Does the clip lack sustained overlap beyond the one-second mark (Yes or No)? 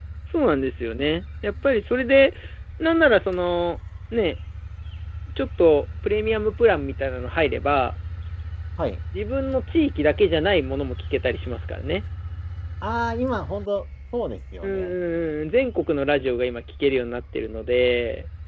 Yes